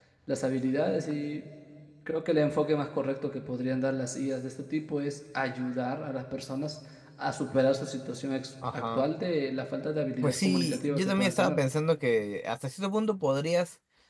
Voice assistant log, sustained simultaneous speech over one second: present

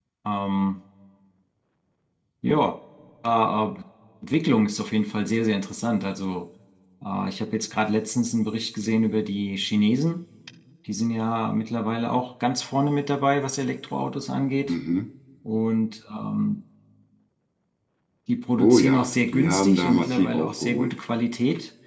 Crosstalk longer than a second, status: present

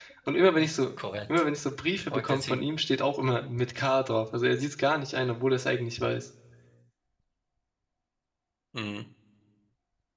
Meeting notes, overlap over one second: none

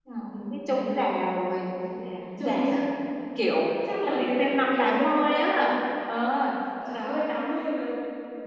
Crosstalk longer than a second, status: present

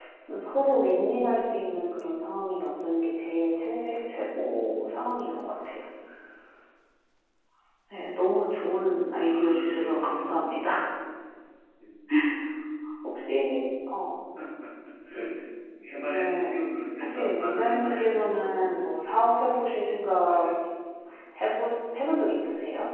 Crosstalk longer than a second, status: present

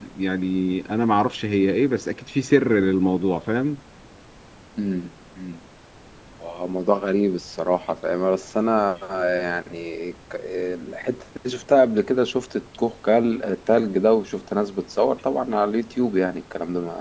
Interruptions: none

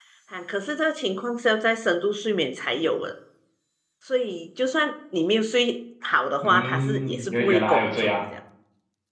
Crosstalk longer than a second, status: present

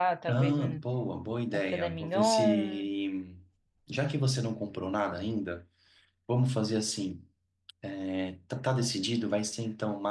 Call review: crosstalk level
present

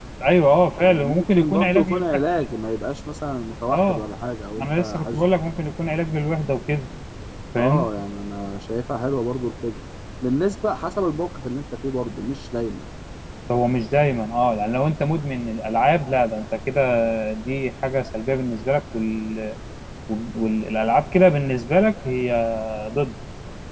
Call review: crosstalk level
present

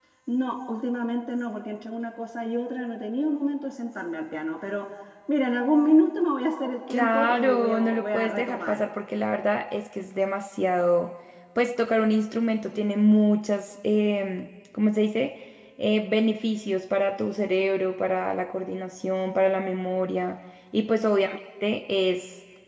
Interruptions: present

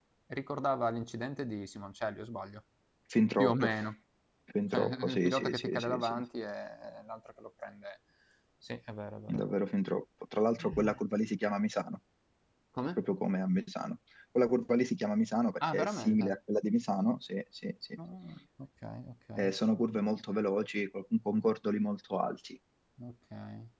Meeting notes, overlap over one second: present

